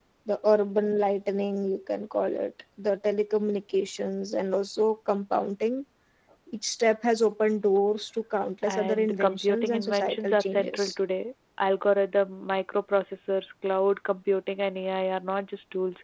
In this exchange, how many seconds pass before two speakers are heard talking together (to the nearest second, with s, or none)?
9 s